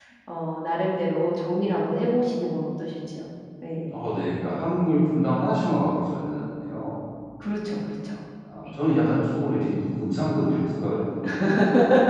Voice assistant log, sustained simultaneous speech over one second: none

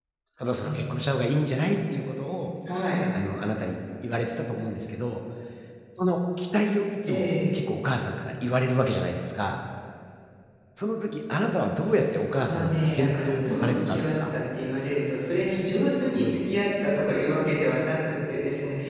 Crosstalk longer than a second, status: present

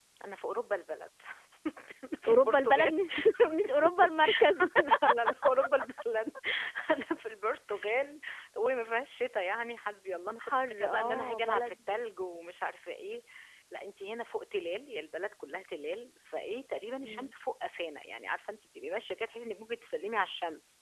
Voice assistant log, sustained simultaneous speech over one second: present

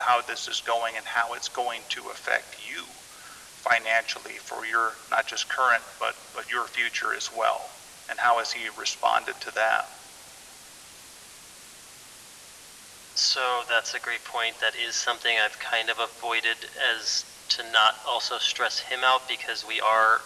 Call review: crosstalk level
none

